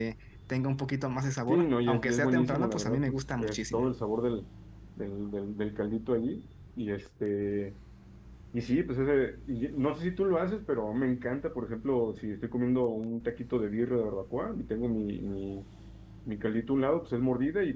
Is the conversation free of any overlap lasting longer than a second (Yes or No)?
No